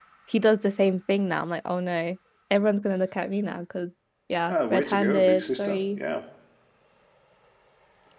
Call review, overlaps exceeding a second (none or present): present